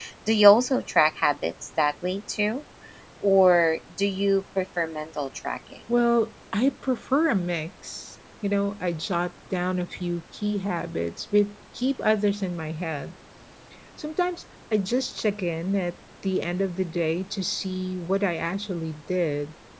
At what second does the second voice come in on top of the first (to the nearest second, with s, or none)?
none